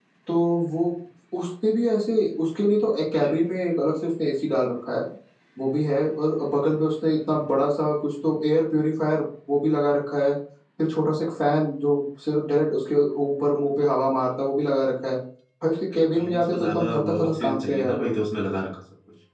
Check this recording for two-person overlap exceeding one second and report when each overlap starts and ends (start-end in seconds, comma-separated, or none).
15.9-18.1